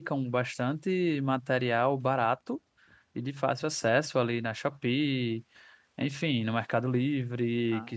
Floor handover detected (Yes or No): No